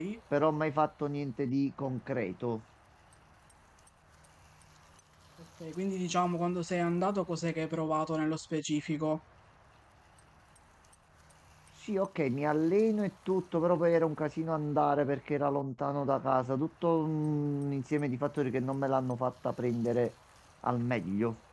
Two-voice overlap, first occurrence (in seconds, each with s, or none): none